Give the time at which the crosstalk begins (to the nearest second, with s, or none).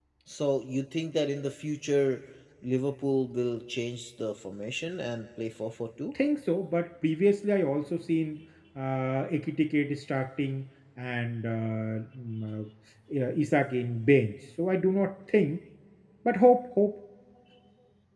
none